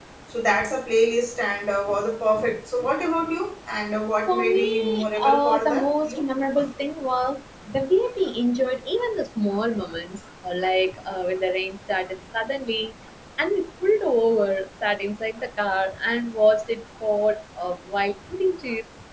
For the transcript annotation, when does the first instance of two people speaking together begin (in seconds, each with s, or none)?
4.3 s